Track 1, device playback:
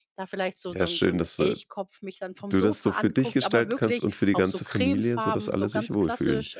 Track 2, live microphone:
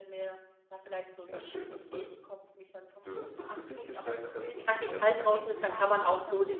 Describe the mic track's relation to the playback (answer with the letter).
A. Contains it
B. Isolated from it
A